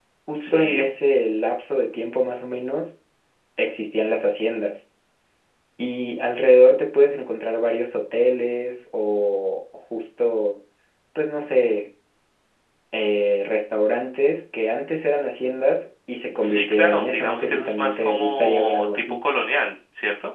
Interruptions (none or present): present